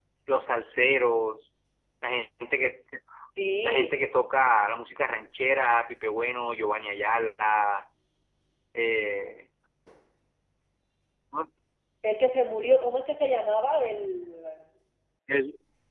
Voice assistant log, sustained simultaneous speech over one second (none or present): none